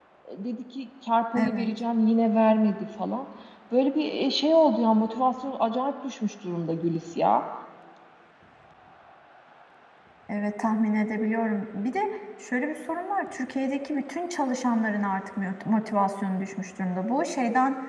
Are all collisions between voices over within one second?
Yes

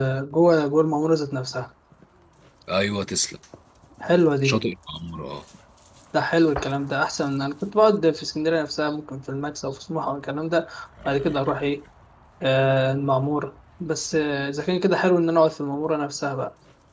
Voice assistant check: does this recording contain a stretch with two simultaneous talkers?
No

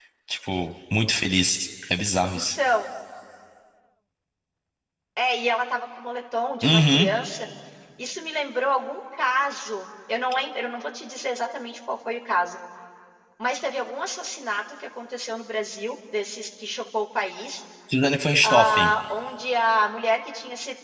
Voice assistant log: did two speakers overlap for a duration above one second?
No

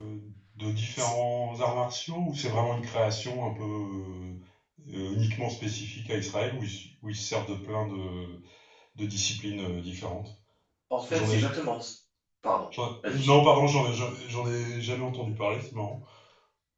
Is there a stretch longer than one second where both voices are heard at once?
No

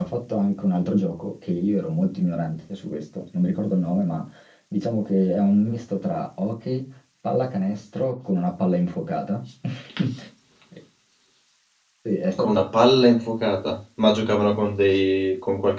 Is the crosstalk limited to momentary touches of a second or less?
Yes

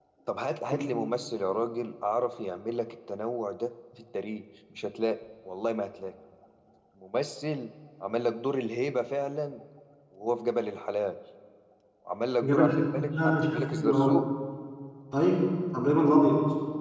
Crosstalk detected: Yes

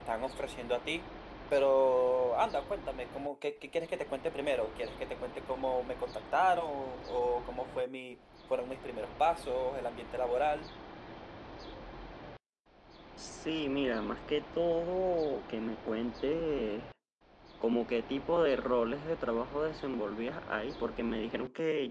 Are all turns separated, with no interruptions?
Yes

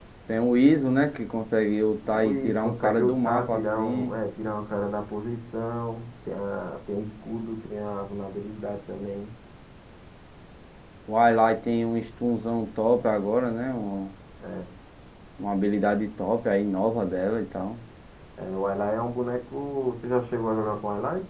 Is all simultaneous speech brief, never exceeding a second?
No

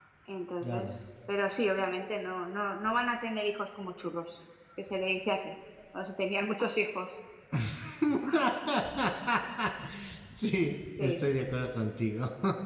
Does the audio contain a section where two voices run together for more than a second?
No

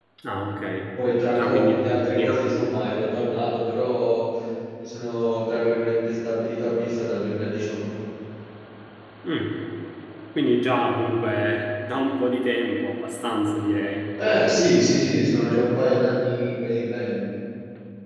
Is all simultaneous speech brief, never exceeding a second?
No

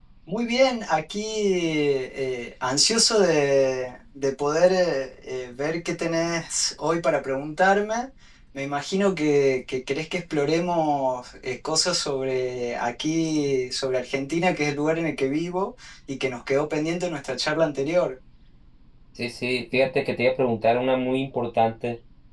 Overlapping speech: No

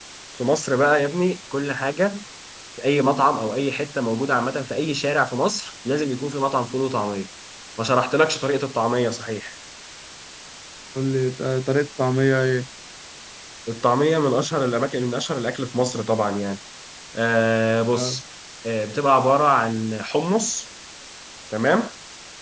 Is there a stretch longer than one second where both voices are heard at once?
No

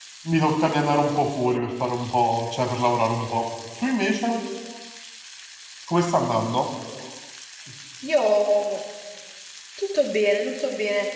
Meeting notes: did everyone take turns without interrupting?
Yes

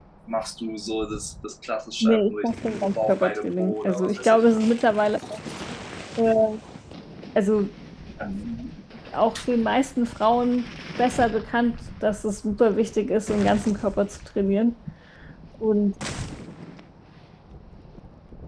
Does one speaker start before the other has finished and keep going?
Yes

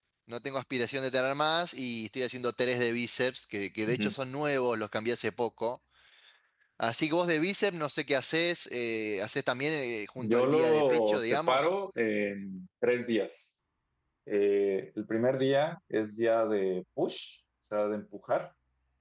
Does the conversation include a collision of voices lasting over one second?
Yes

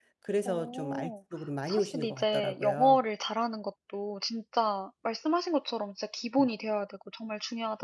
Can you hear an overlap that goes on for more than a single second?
Yes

